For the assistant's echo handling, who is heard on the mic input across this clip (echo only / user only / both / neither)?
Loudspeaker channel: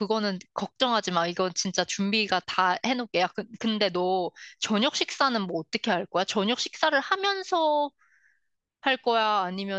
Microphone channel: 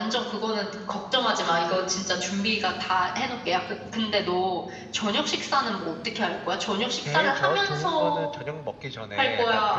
both